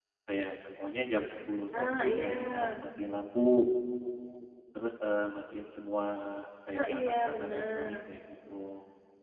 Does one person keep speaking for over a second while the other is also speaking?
Yes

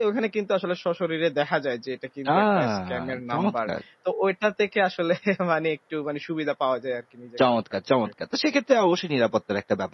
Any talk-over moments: Yes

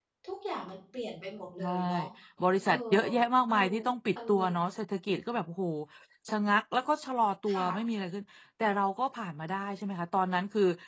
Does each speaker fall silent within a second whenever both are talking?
Yes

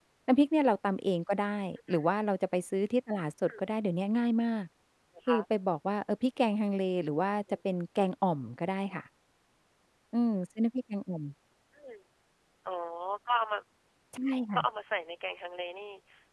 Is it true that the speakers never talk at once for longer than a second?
Yes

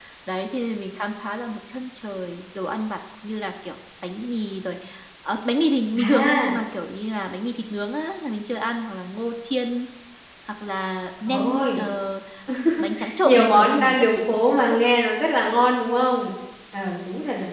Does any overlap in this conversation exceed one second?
Yes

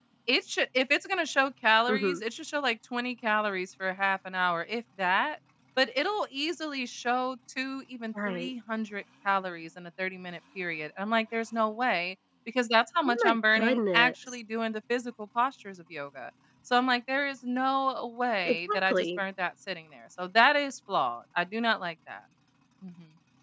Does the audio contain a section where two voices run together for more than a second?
Yes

